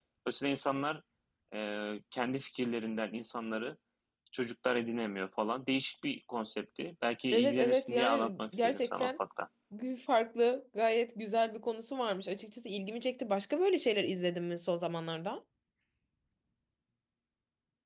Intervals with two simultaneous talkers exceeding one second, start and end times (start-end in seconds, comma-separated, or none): 7.3-9.1